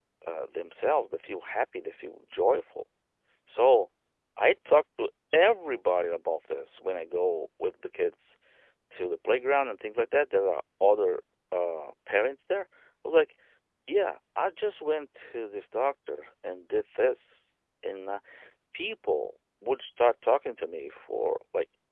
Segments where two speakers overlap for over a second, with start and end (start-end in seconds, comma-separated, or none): none